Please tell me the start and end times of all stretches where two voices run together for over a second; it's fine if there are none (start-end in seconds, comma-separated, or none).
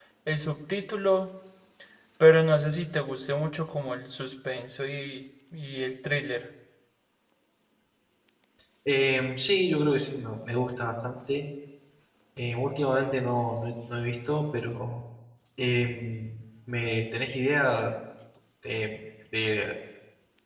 none